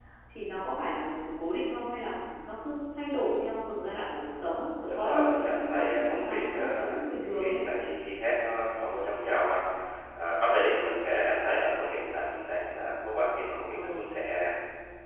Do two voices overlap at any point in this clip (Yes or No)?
Yes